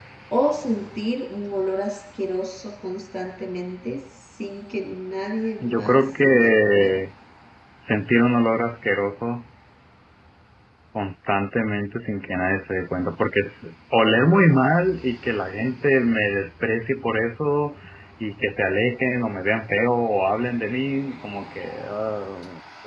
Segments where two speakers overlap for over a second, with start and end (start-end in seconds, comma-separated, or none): 5.6-7.0